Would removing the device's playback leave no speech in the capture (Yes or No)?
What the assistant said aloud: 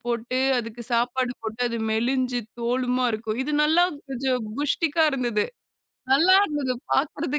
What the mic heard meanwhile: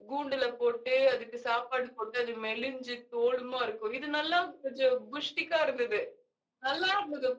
Yes